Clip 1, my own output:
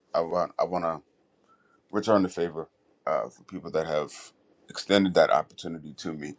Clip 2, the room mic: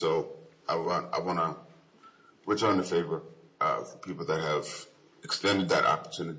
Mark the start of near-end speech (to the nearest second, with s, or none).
none